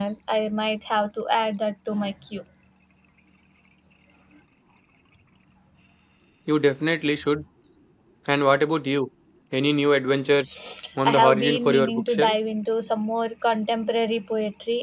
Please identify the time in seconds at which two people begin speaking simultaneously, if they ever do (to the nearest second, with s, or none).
11 s